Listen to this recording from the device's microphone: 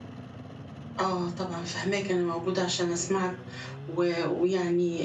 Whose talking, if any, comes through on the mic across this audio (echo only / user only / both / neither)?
user only